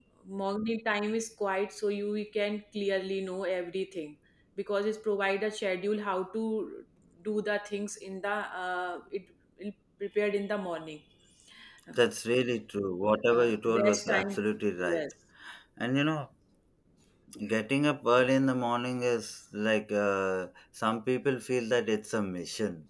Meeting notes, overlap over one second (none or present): present